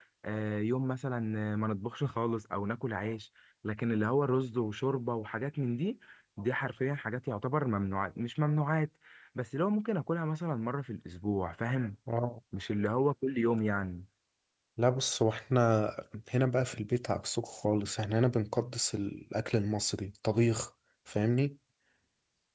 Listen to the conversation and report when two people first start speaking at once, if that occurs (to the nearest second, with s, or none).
none